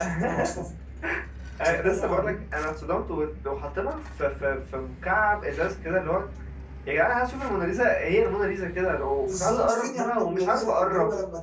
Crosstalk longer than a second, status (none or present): present